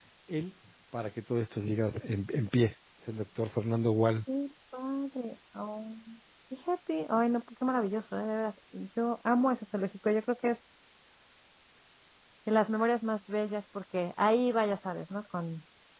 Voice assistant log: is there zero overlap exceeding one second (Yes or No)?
Yes